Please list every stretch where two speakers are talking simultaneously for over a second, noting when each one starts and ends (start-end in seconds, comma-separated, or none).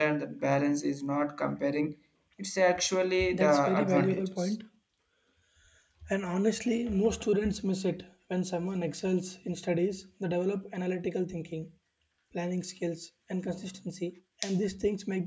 3.3-4.5